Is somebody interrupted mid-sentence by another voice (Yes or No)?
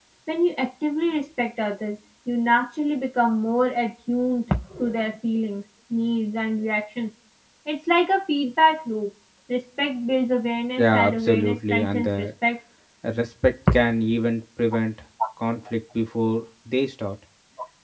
Yes